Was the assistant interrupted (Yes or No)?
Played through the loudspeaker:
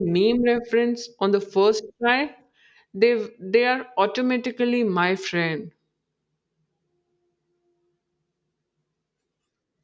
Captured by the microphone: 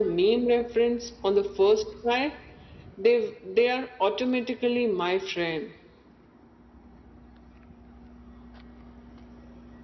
No